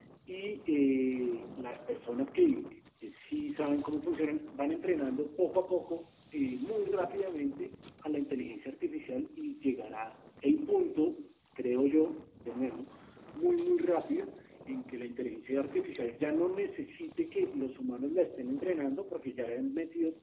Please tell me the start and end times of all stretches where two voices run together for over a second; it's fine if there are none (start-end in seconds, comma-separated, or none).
none